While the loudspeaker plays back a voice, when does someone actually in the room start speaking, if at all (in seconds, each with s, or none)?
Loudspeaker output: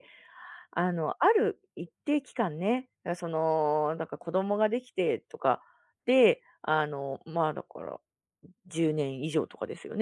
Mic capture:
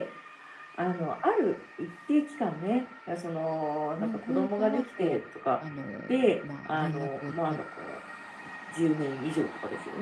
4.0 s